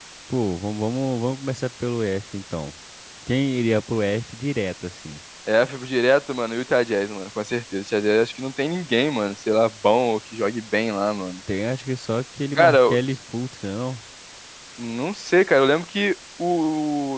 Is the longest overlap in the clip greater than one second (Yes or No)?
No